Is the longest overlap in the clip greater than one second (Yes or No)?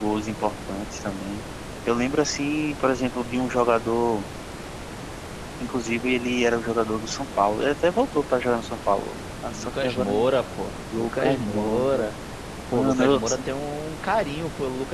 Yes